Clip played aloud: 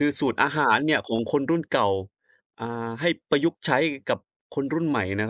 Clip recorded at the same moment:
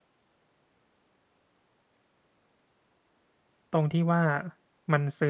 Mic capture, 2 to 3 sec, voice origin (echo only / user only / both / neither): neither